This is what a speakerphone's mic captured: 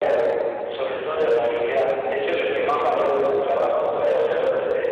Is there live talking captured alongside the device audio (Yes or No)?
No